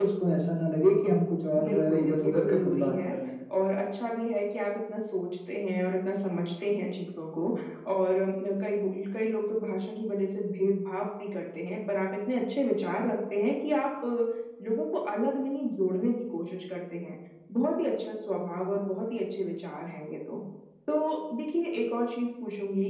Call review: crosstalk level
present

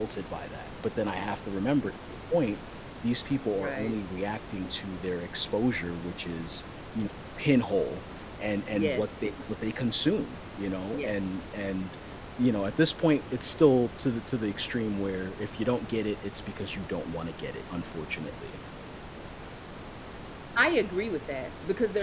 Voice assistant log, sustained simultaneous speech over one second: none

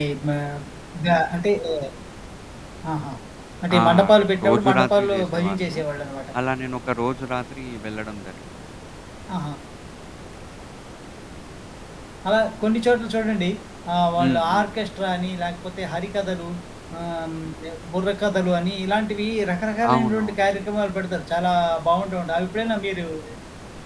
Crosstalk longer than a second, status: present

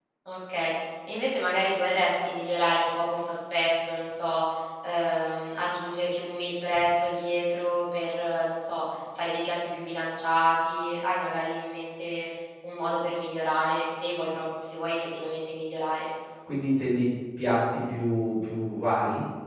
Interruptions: none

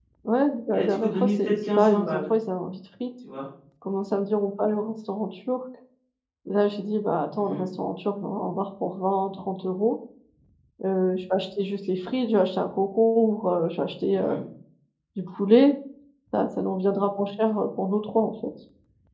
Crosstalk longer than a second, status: present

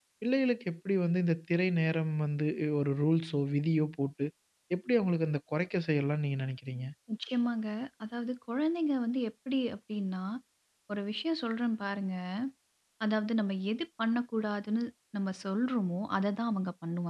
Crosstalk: none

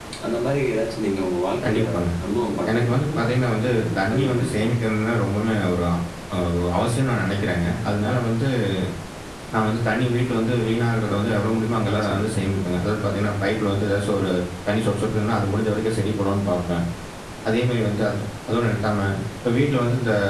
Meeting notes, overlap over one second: present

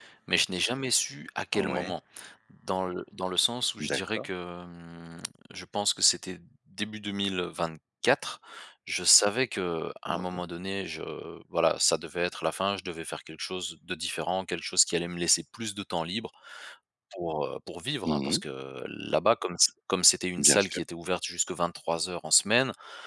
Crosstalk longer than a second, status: none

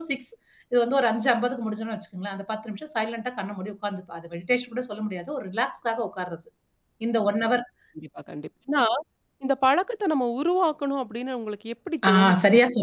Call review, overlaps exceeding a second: none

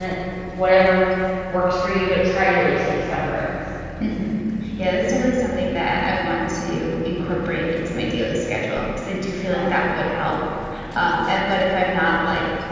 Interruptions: none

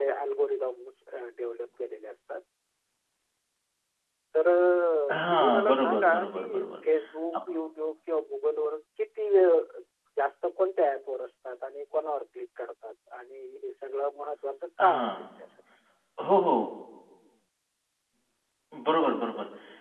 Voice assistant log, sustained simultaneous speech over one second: present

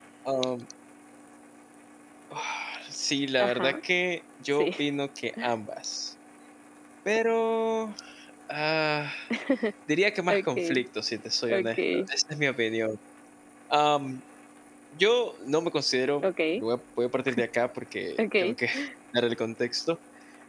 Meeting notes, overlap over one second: none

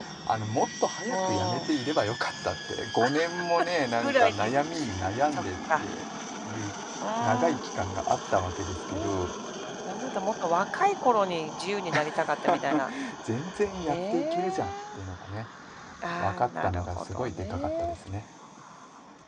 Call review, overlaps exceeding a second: present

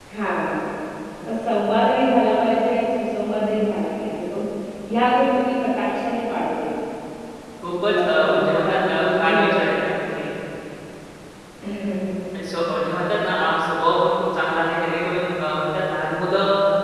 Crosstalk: present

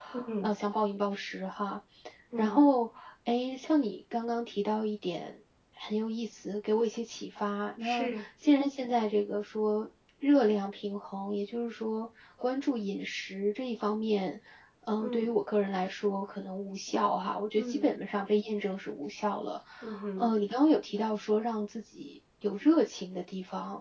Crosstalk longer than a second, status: none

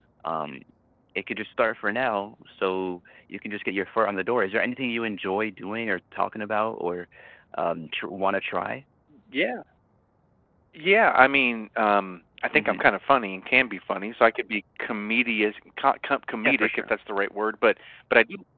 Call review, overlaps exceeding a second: none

